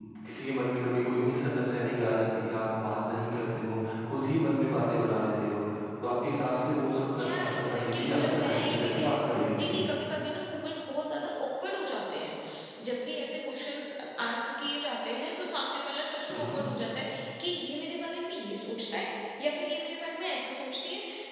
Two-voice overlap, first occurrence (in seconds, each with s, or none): 7.2 s